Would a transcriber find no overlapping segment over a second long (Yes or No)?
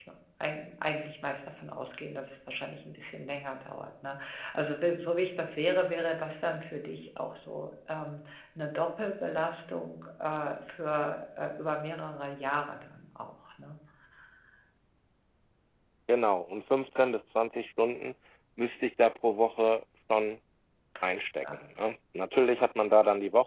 Yes